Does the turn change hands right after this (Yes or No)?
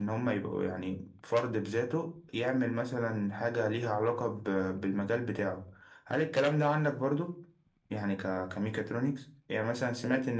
No